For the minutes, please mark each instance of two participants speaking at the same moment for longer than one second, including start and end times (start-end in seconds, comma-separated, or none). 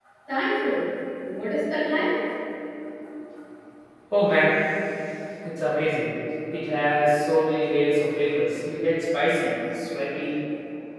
none